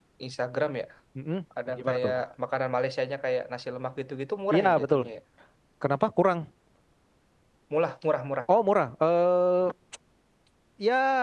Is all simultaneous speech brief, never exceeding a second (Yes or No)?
Yes